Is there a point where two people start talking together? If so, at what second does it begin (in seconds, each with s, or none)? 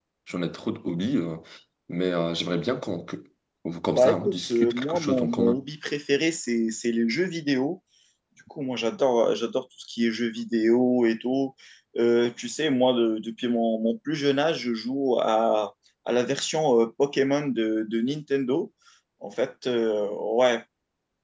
3.9 s